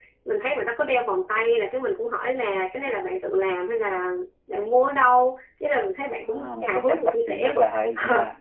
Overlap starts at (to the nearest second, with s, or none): 6 s